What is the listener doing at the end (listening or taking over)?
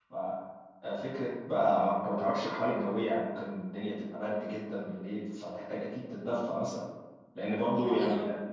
listening